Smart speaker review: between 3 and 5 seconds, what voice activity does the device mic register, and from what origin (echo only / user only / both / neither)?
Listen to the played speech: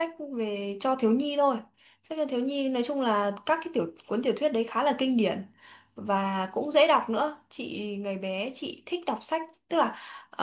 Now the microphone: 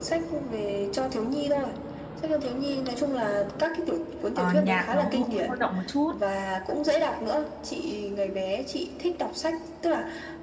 both